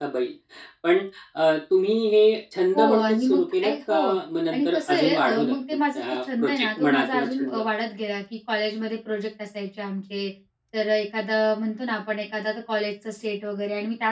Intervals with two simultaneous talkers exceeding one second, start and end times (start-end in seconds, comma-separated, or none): 2.8-4.1, 4.5-7.6